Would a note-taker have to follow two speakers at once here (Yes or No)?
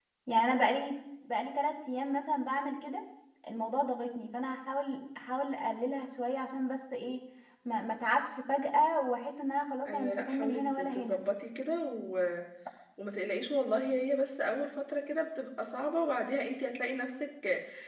Yes